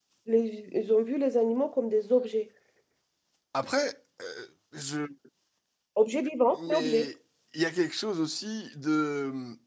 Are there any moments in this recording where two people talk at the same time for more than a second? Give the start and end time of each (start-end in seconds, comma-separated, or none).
none